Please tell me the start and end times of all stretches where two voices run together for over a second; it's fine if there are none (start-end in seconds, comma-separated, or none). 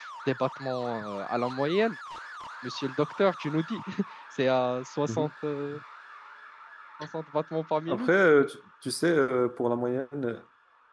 none